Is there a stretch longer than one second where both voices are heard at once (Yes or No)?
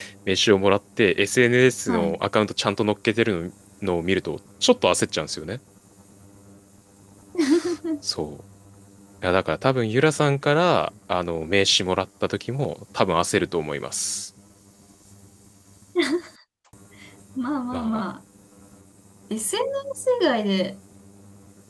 No